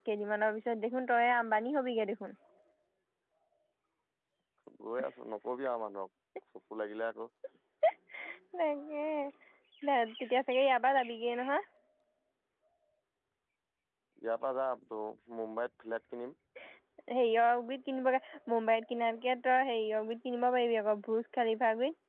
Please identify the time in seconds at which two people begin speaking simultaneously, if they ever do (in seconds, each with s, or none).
none